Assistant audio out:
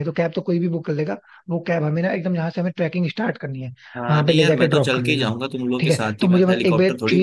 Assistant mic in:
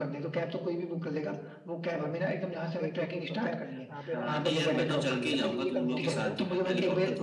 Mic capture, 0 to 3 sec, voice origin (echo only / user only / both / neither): both